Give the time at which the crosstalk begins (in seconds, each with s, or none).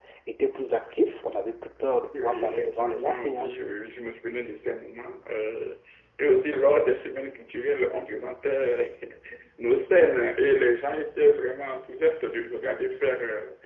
2.1 s